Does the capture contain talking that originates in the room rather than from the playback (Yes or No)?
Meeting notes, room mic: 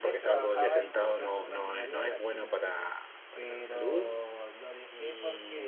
Yes